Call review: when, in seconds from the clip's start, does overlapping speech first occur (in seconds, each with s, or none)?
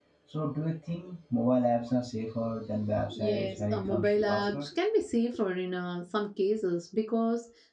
3.1 s